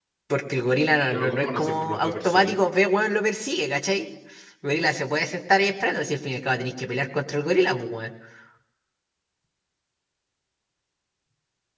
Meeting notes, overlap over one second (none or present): present